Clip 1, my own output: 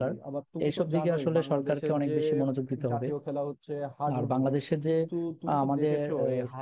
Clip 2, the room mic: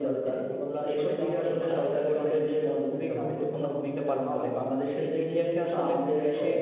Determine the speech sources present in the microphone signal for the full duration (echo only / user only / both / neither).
both